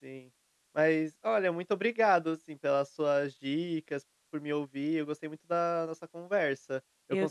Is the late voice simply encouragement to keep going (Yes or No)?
Yes